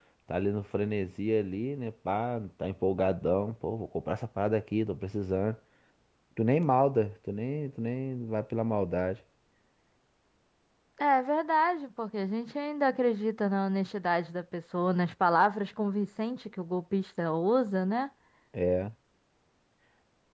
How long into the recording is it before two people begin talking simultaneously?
none

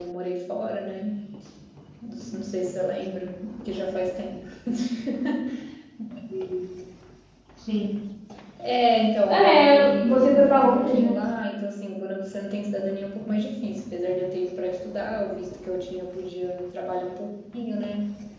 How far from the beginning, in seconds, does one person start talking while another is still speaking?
9.3 s

